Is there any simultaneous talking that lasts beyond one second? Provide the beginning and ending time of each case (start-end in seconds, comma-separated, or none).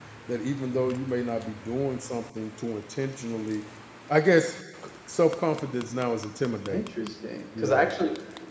none